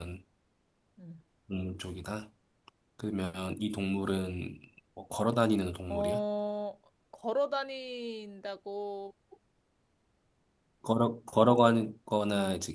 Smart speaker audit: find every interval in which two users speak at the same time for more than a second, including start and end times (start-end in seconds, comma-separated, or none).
none